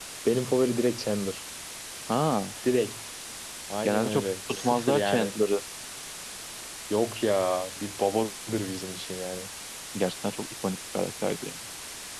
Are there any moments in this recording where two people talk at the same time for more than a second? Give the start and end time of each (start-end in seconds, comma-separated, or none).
3.8-5.3